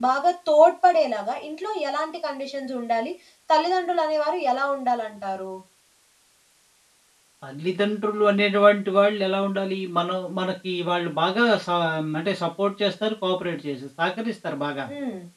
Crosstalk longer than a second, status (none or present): none